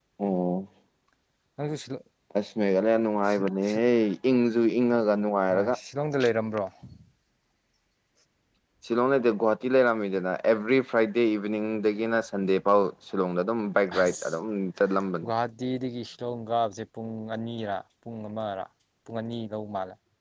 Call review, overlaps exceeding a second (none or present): none